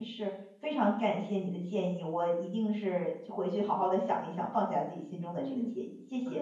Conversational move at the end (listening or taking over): taking over